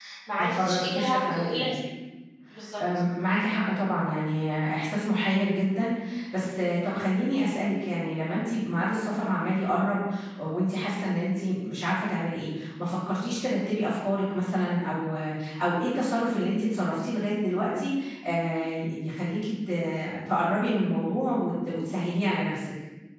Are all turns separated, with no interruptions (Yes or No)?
No